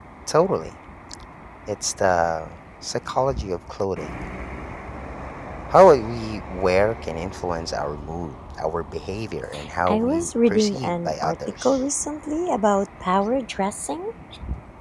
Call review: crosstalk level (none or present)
present